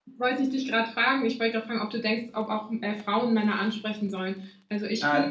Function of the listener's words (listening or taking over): taking over